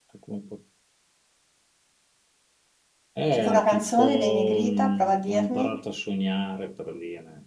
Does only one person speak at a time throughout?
No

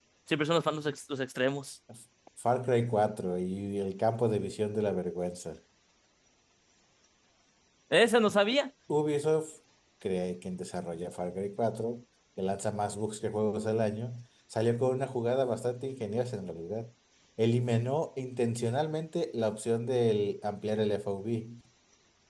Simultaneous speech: No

